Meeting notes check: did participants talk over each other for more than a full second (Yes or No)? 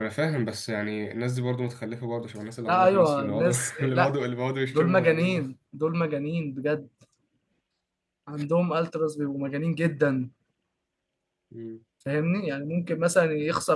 Yes